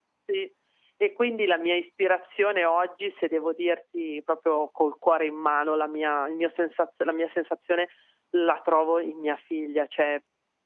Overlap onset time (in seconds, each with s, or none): none